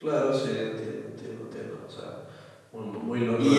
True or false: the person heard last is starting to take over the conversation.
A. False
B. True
B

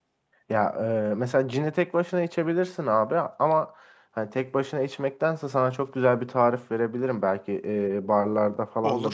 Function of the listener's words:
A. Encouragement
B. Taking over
A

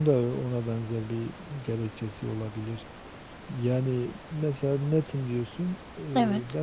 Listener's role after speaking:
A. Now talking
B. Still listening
B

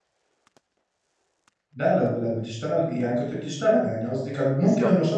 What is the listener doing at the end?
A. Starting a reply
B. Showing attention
B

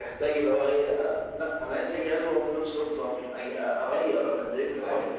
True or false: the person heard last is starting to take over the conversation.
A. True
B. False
A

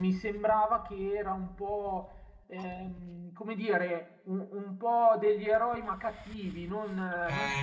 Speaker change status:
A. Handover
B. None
A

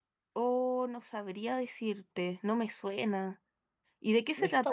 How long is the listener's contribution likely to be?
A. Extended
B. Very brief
A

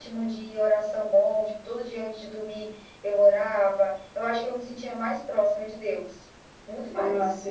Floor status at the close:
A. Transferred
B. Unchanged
B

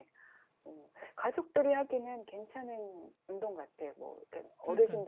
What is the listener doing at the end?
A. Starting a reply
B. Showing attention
B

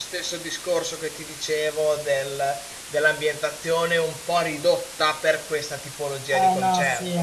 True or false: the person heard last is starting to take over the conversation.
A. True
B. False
A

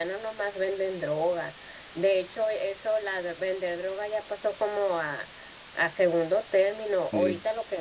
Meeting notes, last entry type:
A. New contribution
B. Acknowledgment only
B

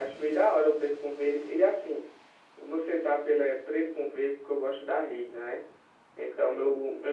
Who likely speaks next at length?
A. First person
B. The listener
A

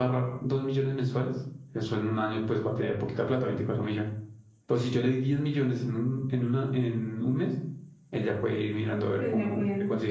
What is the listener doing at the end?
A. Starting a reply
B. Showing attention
A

